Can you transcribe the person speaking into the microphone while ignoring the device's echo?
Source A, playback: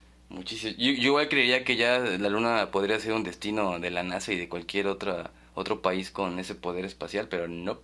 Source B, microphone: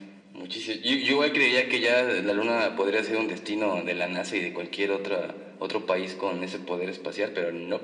none

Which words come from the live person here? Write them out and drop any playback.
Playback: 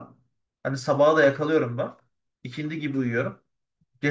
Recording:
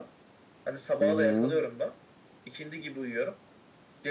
Hı hı.

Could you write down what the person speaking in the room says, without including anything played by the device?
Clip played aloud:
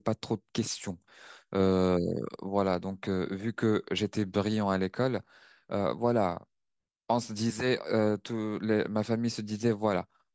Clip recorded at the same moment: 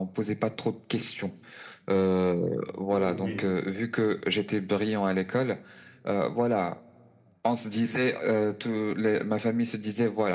oui, oui.

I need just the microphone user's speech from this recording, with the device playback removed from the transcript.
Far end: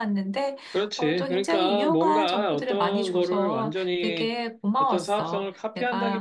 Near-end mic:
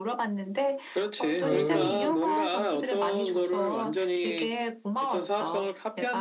어,

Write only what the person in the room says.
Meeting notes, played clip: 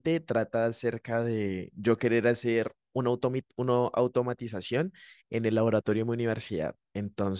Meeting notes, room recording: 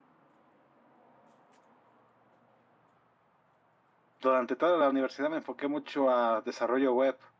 durante toda la universidad me enfoqué mucho a desarrollo web,

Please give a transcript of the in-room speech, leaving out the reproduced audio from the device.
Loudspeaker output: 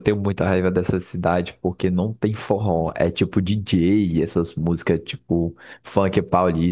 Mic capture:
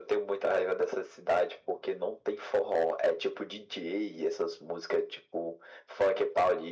none

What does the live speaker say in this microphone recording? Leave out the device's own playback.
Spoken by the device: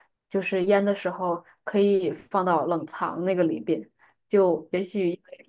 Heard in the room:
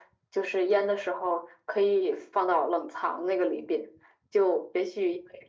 none

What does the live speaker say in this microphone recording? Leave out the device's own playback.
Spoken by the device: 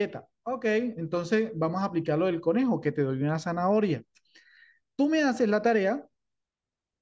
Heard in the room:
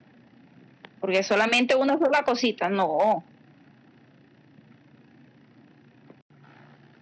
porque solamente una sola cosita, no.

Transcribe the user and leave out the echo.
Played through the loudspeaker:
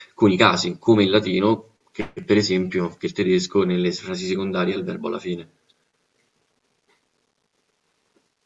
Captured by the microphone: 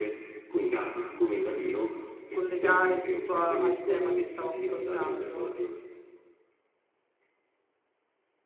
collegare tutto a- al tema che stavo affrontando,

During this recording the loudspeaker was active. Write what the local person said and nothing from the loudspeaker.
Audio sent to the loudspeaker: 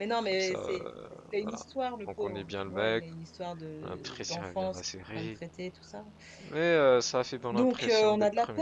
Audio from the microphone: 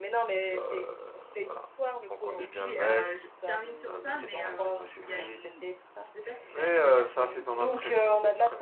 et puis, euh, je termine sur ça, mais euh, il y a une... Je sais pas si tu as regardé la série You,

